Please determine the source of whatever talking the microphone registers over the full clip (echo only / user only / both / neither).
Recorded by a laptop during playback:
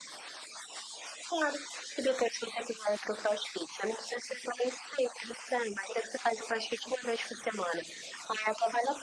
echo only